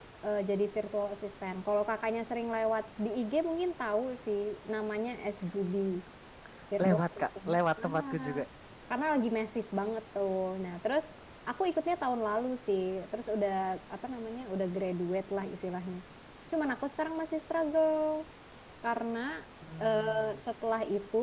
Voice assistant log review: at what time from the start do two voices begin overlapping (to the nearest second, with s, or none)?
7 s